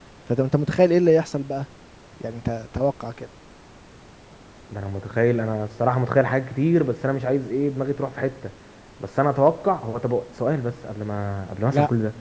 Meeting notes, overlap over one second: none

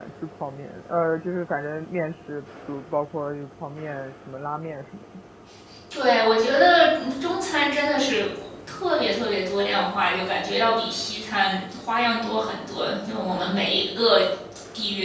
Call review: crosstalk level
none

